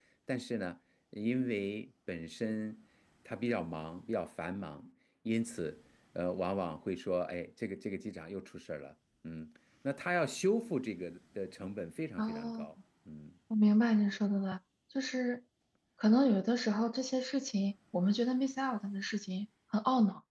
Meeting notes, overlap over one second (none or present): none